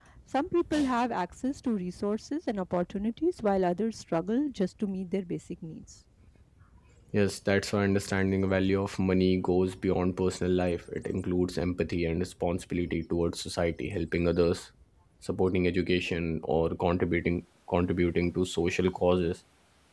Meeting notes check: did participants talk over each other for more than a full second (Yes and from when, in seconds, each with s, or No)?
No